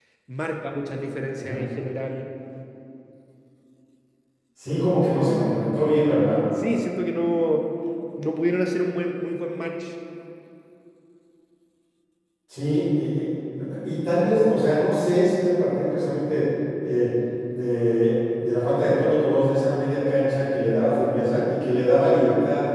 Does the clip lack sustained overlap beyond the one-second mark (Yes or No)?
Yes